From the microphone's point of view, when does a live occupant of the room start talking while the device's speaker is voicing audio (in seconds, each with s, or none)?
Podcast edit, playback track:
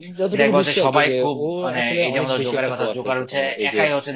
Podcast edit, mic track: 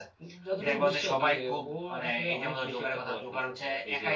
none